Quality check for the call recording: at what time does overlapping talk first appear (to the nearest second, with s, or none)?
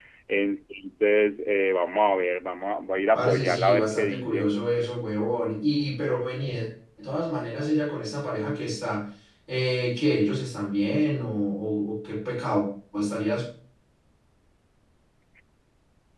3 s